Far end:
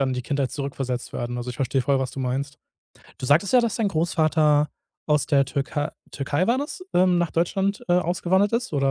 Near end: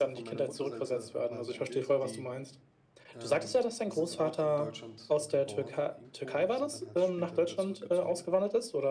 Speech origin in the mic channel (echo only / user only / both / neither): both